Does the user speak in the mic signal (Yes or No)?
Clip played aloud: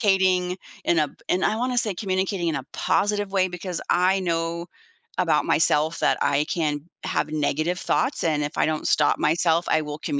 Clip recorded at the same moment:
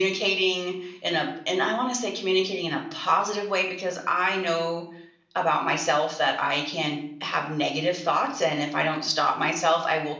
No